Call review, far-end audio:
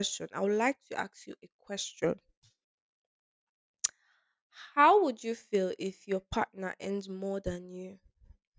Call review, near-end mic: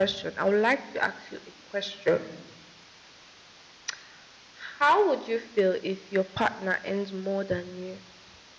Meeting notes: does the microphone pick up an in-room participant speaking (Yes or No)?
No